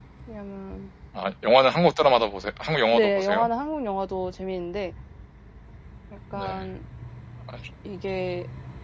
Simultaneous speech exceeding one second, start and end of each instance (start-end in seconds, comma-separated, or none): none